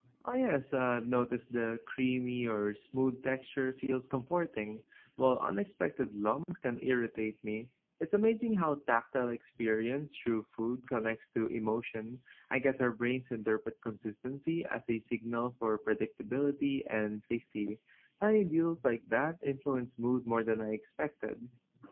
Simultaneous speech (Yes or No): No